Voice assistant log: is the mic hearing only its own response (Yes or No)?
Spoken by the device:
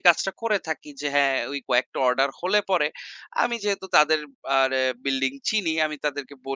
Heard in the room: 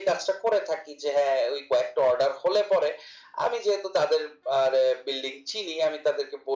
Yes